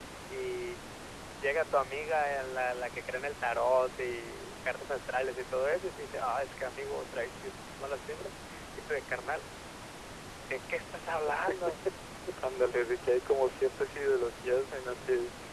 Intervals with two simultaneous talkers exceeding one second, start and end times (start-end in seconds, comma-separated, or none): none